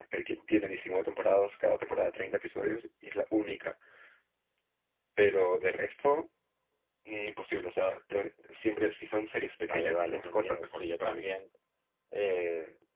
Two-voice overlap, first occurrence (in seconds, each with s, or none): 9.6 s